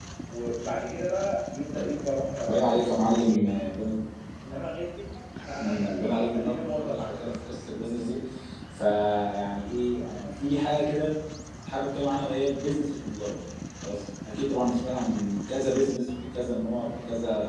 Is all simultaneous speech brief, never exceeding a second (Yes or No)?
No